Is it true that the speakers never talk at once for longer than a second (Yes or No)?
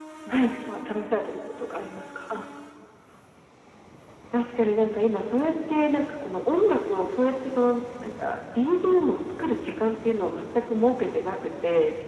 Yes